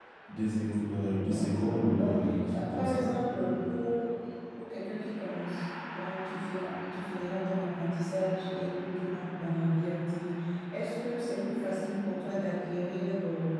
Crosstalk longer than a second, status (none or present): present